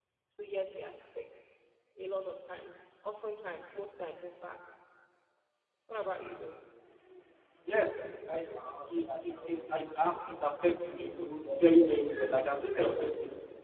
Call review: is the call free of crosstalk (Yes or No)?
Yes